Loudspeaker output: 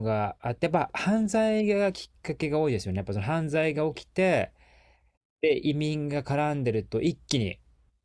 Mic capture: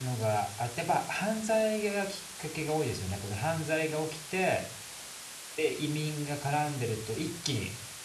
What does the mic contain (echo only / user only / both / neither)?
echo only